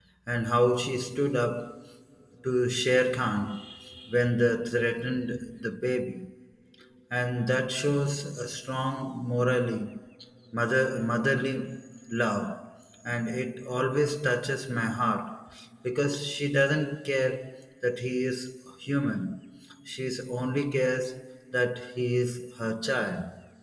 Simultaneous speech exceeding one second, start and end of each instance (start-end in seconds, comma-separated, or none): none